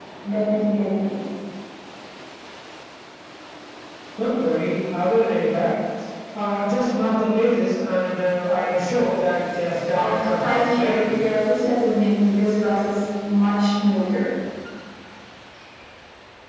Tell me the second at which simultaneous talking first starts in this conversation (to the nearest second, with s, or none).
10 s